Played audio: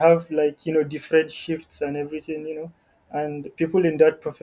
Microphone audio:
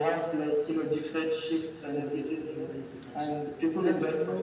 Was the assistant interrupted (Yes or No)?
Yes